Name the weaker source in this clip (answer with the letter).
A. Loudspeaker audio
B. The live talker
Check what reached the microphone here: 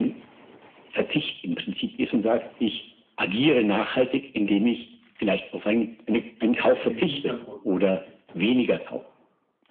B